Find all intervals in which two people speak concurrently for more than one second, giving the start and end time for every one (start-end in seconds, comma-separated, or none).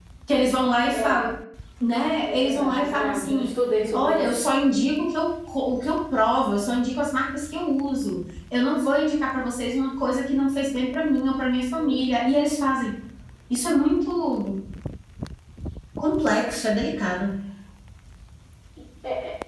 2.2-3.5